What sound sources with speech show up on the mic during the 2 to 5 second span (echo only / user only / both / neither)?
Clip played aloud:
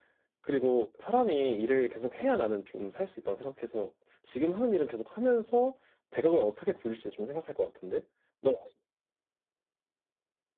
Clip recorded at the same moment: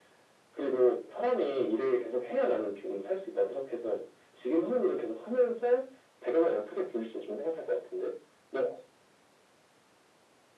echo only